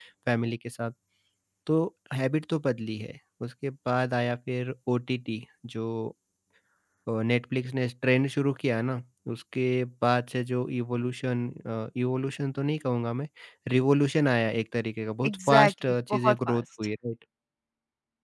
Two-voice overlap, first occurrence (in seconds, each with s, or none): 15.2 s